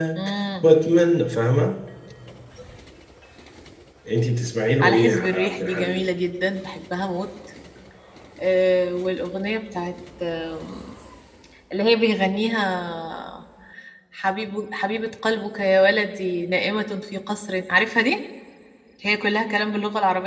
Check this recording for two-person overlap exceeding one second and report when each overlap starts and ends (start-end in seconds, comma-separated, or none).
4.8-6.1